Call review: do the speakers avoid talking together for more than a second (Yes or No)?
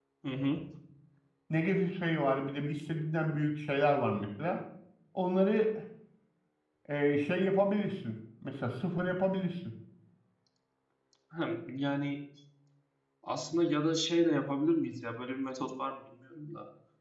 Yes